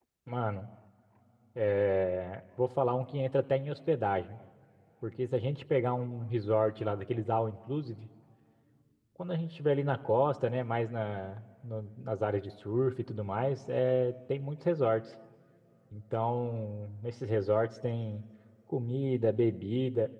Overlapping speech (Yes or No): No